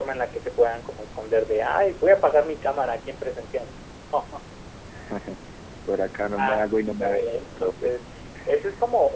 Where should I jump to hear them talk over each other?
6.4 s

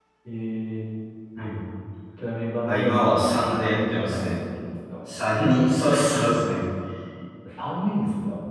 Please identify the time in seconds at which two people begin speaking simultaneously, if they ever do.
2.6 s

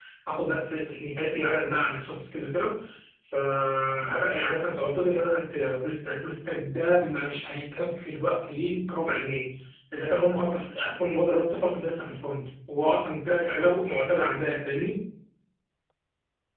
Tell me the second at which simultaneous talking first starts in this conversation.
none

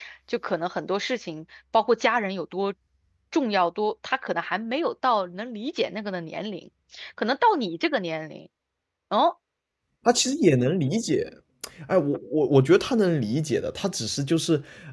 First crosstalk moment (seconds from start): none

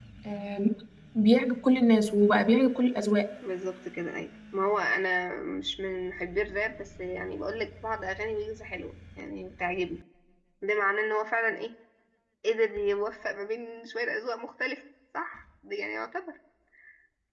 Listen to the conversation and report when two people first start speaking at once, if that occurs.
none

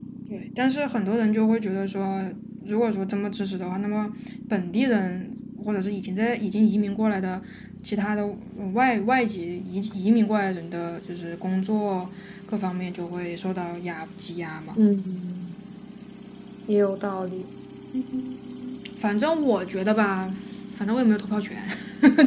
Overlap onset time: none

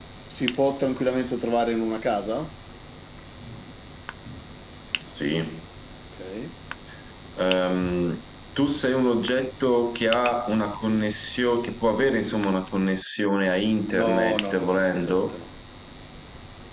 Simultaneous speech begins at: 13.9 s

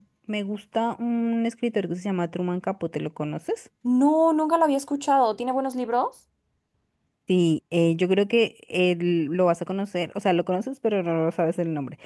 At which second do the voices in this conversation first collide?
none

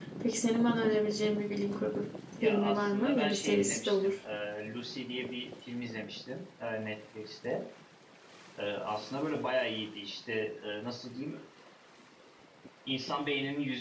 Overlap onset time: 2.4 s

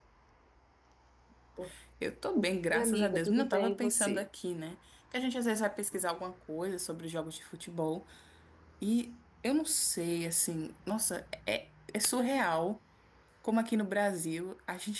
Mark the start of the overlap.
2.7 s

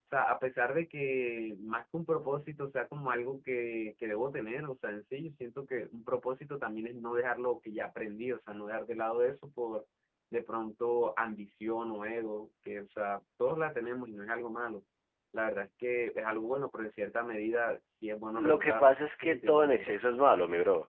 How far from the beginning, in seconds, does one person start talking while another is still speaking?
18.4 s

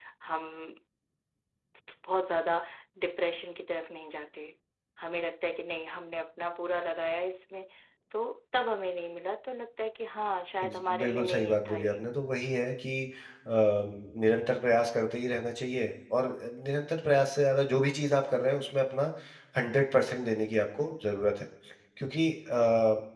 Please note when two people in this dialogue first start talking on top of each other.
10.6 s

